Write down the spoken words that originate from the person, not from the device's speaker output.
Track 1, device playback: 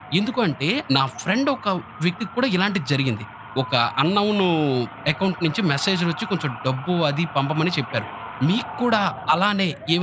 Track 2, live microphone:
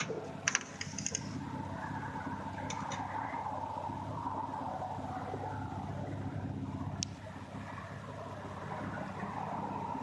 none

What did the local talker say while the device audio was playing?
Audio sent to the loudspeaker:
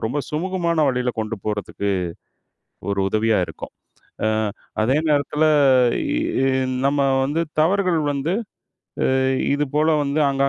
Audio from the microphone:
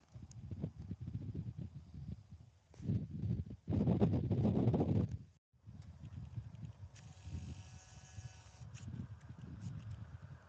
none

